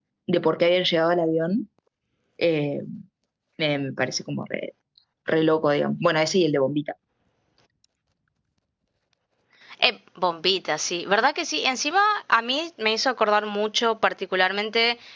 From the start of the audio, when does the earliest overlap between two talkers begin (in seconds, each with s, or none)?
none